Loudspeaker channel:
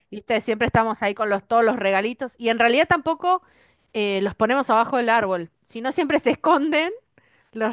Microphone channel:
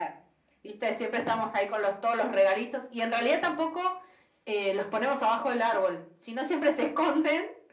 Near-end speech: none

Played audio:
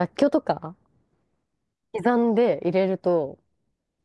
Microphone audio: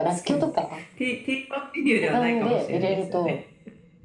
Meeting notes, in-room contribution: present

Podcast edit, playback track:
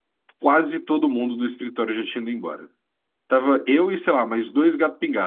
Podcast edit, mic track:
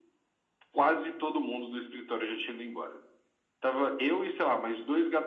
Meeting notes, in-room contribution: none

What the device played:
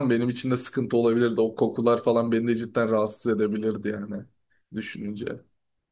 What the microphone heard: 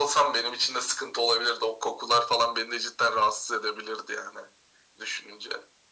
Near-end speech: none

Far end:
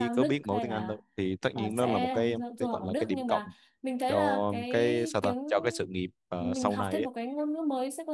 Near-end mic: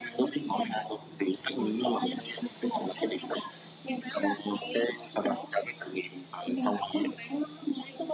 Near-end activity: none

